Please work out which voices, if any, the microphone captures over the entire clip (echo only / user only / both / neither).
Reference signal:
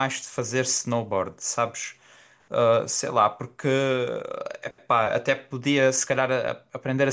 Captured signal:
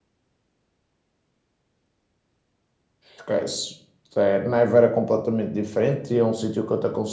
user only